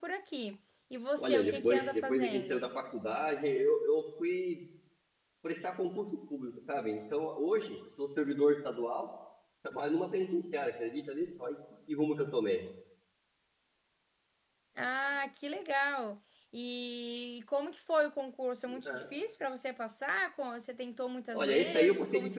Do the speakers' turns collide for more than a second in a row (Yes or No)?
Yes